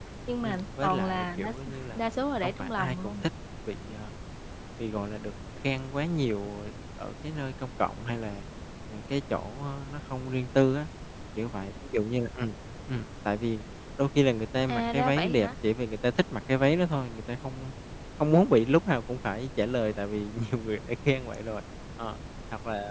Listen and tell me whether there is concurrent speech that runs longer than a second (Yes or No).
Yes